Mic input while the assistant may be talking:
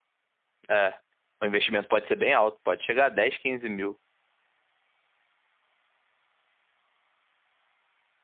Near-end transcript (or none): É. O investimento pode ser bem alto, pode chegar a 10 15 mil.